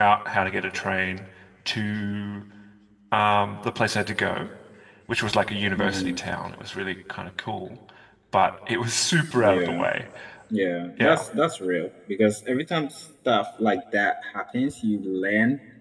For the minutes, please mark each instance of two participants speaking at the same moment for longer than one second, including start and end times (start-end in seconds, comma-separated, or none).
none